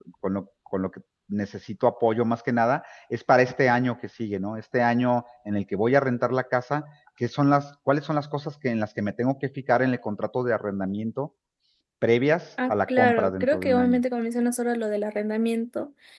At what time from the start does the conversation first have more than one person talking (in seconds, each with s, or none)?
12.7 s